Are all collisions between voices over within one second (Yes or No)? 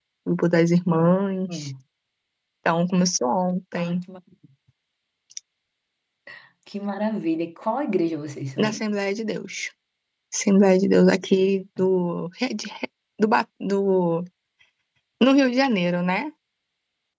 Yes